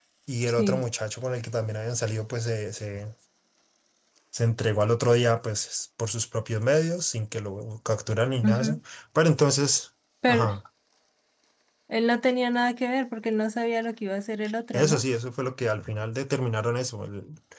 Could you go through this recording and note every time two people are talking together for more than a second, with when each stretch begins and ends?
none

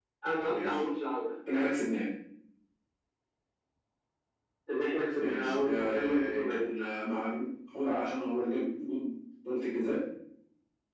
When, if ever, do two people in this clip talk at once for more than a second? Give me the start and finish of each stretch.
5.2-6.7

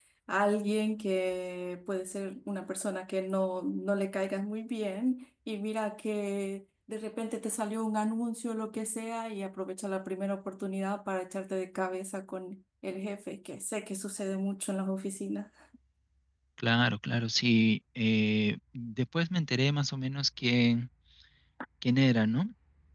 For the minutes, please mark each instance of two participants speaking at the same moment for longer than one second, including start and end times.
none

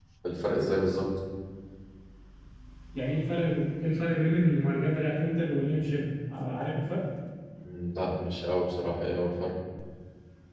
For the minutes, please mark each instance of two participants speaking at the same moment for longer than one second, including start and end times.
none

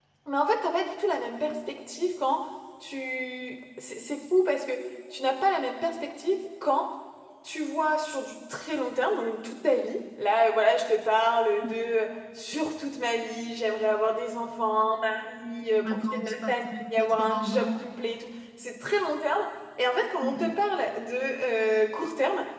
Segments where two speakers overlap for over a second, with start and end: 15.9-17.8

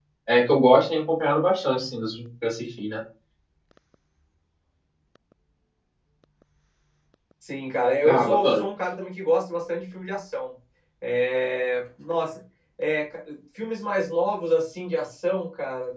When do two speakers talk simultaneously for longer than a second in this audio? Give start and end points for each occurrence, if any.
none

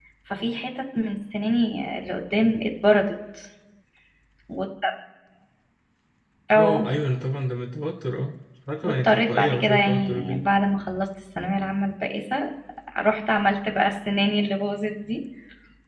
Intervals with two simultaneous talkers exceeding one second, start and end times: 8.8-10.4

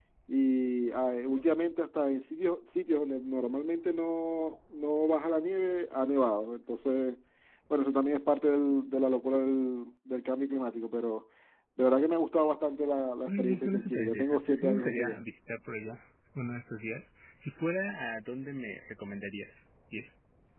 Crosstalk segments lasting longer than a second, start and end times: 13.3-15.2

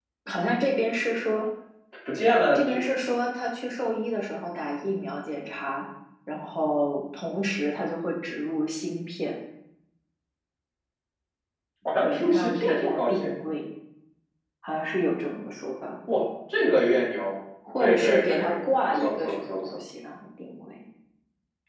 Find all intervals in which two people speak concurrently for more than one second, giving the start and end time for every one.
12.0-13.3, 17.8-19.8

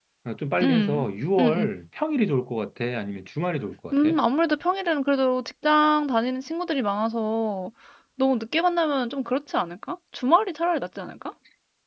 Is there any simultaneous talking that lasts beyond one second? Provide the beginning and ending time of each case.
none

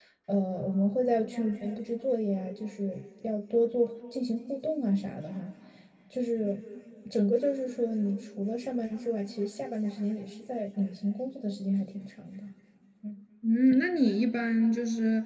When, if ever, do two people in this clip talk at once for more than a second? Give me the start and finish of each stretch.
none

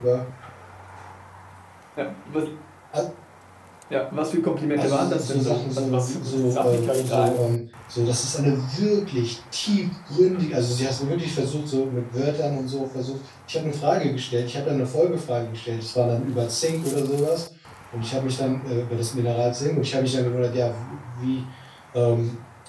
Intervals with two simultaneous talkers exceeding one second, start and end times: 4.8-7.5

